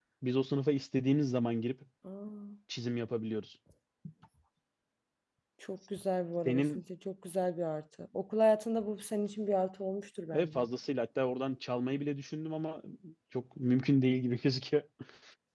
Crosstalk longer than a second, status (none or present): none